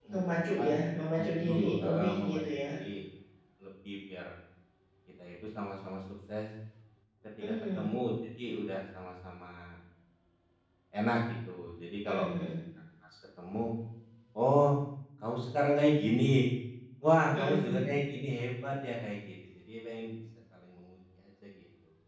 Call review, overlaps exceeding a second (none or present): present